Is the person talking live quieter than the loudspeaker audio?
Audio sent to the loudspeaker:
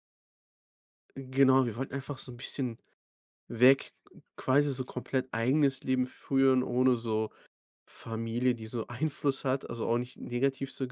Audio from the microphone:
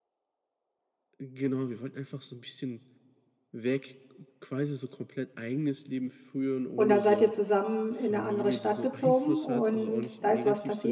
No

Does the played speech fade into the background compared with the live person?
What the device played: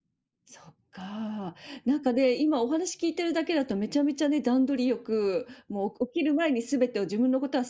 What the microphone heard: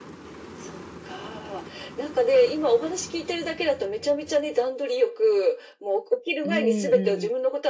No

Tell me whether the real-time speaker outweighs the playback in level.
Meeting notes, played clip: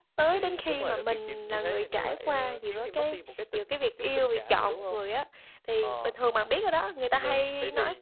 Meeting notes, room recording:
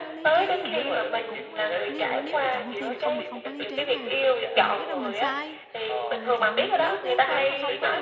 No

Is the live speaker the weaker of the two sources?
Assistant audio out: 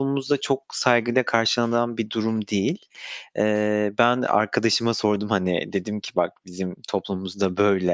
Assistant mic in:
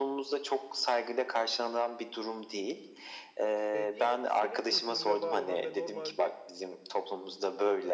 Yes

